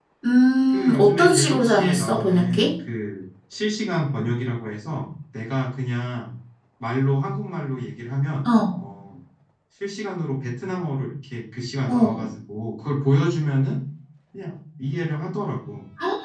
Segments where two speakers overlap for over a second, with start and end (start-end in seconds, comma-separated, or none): 0.7-2.7